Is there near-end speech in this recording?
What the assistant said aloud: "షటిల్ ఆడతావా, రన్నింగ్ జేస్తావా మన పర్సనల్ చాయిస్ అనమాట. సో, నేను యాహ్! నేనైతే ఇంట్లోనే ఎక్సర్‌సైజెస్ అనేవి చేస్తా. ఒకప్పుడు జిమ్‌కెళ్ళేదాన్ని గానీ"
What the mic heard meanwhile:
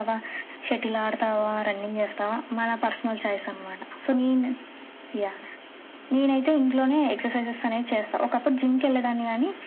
No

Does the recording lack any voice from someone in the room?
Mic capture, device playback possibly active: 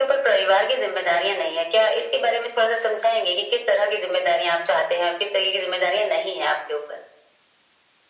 Yes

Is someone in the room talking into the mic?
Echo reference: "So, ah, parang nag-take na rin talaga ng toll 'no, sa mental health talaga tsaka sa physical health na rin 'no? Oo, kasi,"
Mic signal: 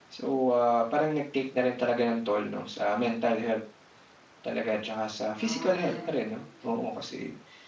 Yes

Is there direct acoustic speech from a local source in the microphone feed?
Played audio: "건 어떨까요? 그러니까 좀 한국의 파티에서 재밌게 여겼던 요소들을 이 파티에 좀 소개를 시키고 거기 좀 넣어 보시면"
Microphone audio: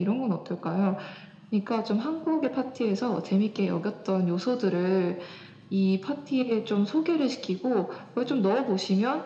No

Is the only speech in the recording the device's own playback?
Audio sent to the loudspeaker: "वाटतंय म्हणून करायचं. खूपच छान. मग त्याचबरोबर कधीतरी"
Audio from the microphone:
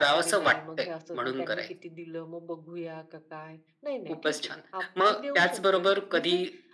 No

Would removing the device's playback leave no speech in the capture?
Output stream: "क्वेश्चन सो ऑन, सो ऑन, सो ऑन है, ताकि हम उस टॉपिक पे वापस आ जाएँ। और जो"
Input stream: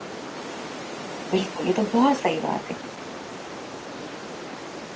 No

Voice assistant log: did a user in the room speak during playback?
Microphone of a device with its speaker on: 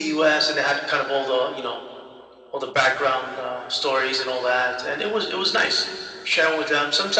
No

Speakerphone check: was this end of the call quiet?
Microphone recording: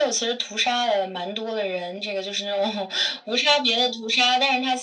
Yes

